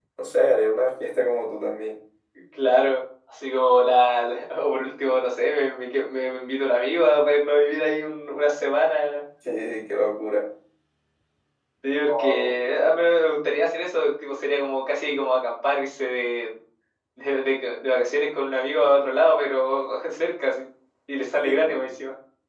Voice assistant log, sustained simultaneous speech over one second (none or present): none